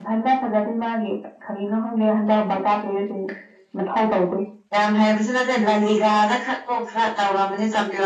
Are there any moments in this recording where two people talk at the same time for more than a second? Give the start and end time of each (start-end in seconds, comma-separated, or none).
none